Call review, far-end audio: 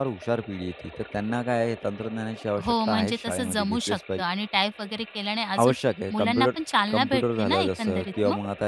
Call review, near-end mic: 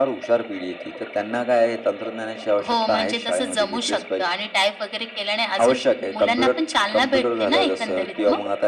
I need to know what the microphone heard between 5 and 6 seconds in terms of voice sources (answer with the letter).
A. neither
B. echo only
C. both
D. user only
B